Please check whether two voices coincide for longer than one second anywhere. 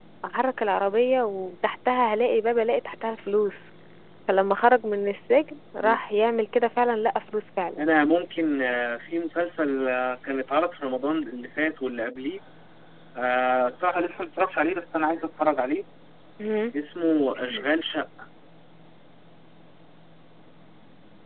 No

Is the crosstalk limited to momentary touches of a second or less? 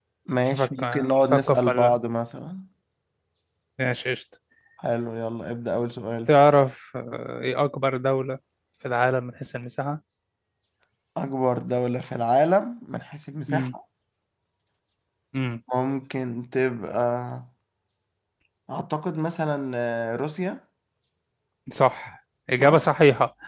No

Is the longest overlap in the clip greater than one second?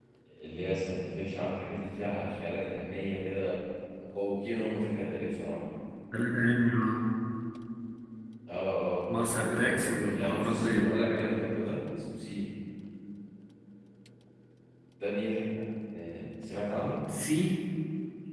Yes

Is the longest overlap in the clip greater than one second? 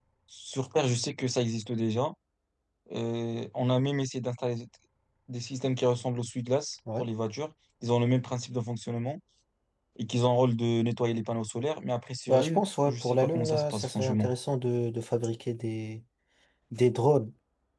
Yes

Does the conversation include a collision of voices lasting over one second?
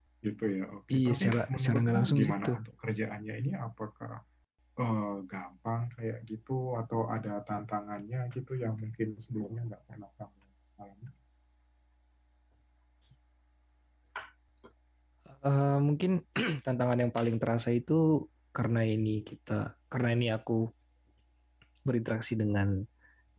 Yes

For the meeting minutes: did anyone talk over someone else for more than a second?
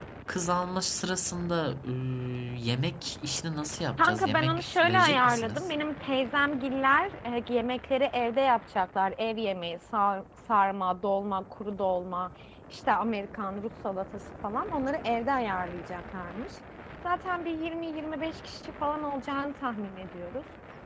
Yes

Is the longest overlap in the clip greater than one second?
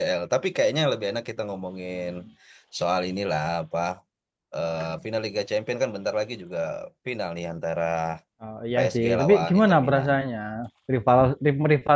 Yes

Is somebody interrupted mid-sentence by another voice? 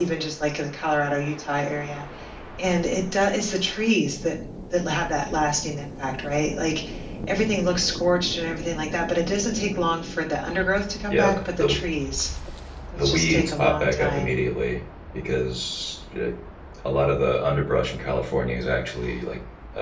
Yes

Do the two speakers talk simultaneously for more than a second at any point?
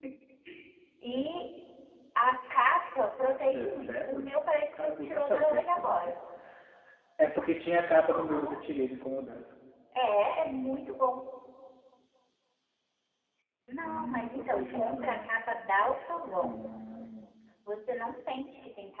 Yes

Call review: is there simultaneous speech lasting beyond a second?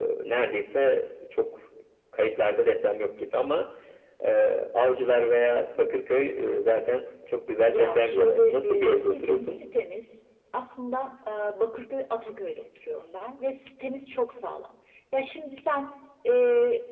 Yes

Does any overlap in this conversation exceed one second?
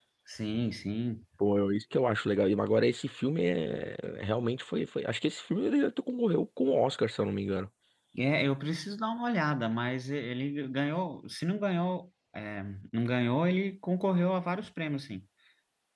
No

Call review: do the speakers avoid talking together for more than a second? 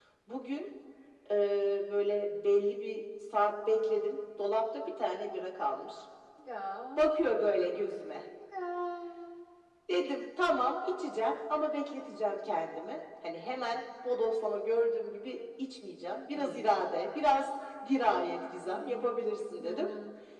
Yes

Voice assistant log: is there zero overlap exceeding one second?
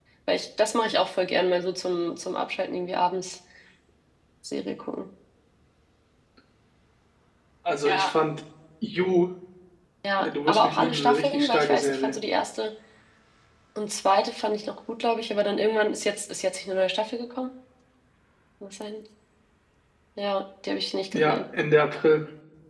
No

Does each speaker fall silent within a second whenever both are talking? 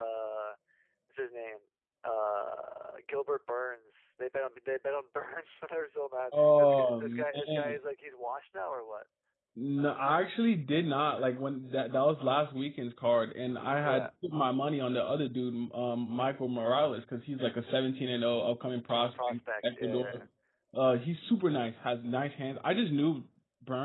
No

